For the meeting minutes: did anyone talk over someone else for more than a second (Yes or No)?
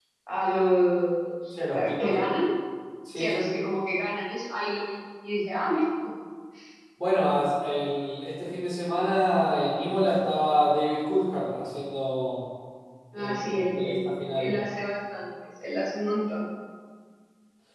Yes